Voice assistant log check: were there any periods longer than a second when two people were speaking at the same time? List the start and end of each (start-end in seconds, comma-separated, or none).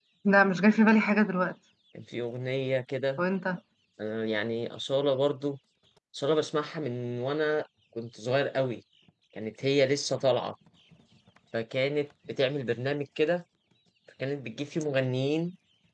none